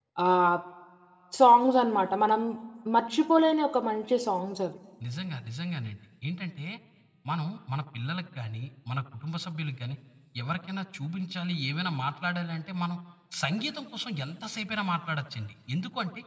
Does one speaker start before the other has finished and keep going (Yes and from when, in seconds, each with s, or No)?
No